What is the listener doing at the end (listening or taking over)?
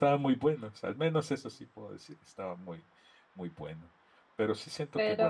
listening